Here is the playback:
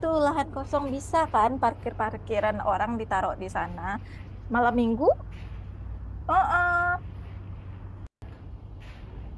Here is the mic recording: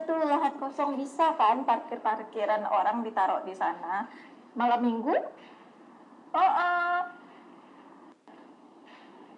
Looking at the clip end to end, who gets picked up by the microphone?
echo only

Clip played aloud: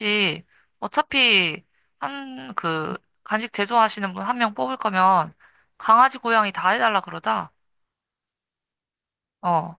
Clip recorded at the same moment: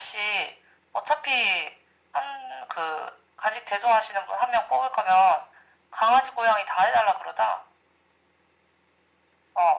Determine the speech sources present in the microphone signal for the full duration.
echo only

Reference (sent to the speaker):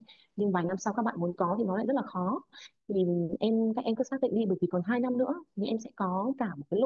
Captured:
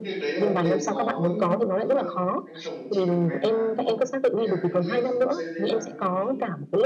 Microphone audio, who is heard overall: both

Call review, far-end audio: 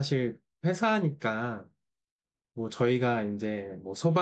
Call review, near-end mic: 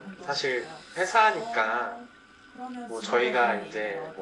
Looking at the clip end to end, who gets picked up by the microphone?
both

